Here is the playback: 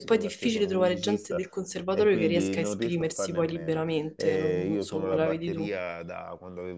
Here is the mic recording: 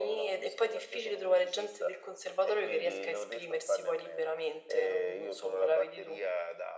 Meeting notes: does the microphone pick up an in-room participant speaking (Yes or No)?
No